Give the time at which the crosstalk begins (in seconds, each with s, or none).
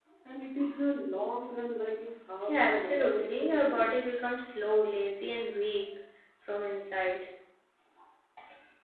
2.5 s